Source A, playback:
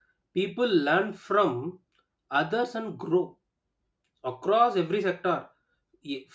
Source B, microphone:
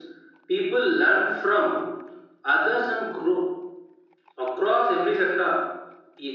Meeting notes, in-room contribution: none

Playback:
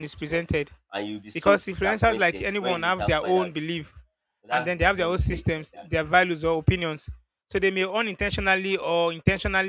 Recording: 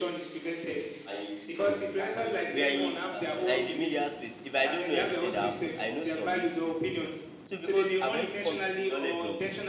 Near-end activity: present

